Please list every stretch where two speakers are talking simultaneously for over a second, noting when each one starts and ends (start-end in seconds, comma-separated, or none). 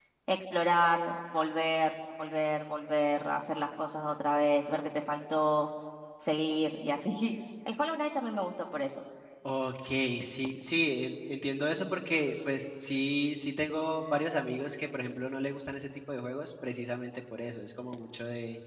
none